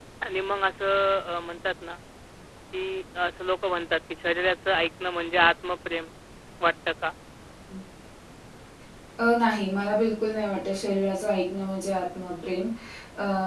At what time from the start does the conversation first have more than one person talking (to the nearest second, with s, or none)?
none